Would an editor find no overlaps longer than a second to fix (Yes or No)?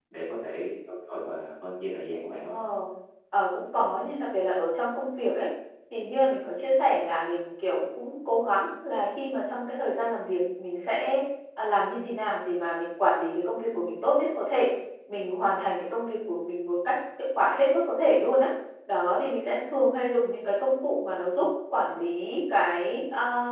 Yes